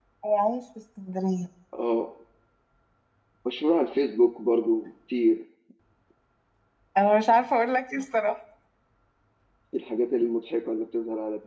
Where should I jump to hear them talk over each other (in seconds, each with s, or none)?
none